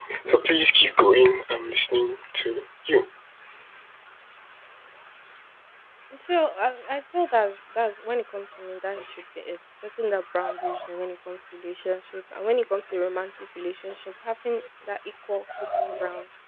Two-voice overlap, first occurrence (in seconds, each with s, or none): none